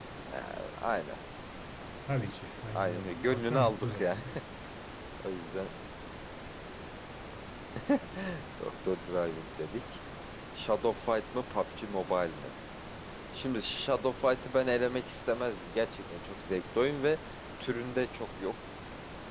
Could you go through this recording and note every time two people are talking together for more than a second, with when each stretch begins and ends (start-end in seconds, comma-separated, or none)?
2.7-4.2